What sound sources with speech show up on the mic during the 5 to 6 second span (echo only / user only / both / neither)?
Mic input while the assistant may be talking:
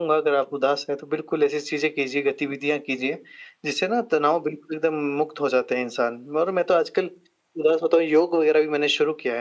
echo only